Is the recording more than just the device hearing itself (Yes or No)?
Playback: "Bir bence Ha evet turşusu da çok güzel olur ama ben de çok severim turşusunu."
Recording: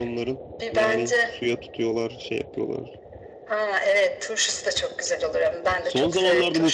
Yes